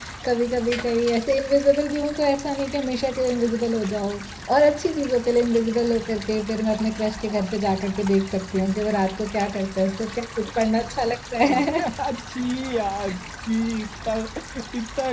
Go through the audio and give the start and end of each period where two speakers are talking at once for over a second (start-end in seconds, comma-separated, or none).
none